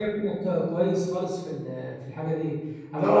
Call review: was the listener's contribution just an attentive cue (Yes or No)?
Yes